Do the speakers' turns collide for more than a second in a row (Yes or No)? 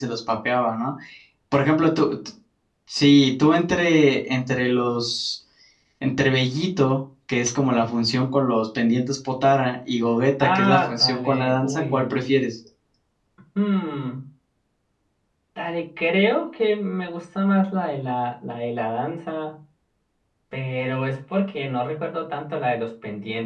Yes